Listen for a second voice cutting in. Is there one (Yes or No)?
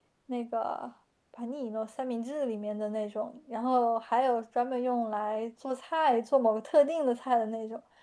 No